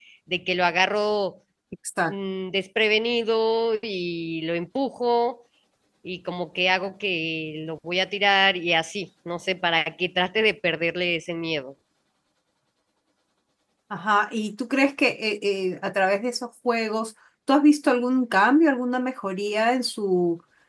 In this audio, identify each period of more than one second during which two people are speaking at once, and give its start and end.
none

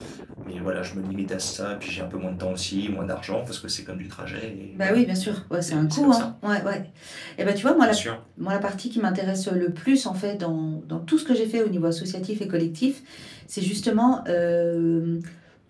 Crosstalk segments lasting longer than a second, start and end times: 4.7-6.3

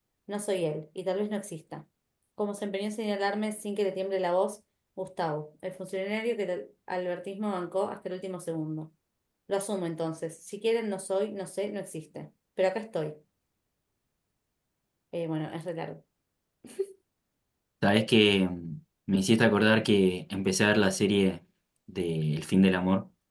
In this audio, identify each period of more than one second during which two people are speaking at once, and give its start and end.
none

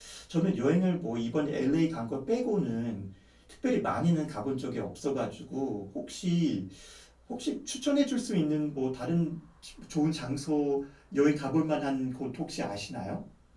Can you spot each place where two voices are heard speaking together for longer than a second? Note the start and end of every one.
none

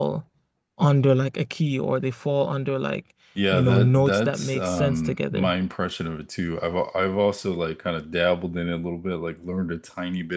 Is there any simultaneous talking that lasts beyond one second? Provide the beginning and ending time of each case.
3.5-5.5

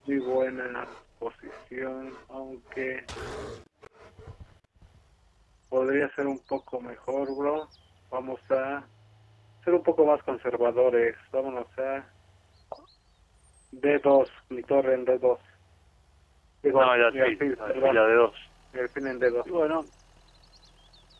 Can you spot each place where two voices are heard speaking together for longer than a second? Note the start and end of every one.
16.8-18.0

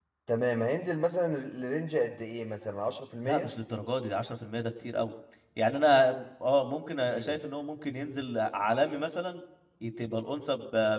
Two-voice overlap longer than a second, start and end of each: none

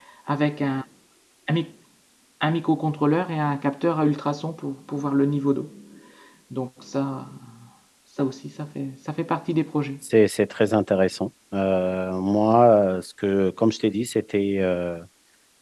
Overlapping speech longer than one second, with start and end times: none

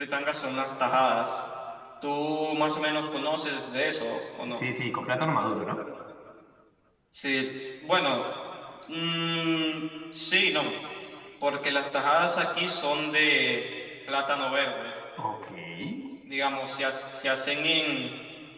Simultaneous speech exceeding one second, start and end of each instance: none

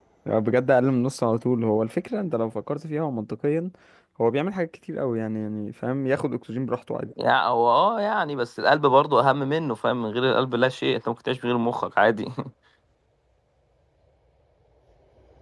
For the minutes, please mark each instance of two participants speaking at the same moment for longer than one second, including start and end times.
none

